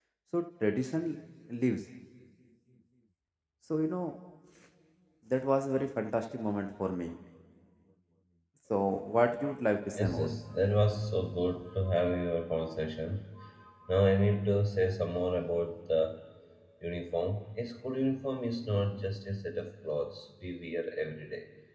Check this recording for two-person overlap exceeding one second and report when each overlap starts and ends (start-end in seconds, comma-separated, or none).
none